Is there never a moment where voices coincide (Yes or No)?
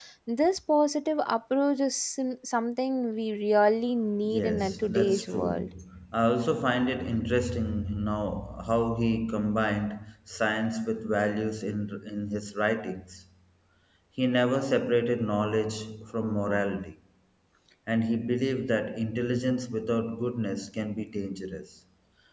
No